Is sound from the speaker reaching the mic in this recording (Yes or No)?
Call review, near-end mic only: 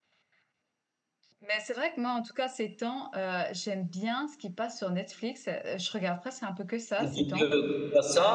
Yes